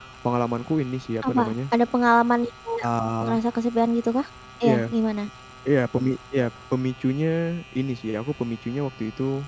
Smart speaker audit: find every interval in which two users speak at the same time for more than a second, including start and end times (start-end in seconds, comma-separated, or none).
none